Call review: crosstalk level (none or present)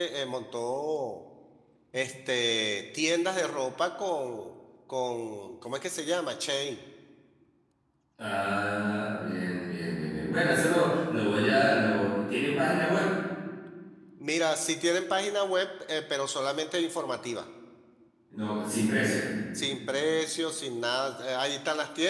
none